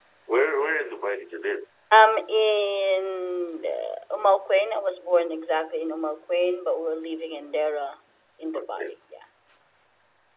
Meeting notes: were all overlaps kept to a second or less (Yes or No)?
Yes